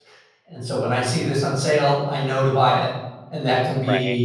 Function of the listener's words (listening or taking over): listening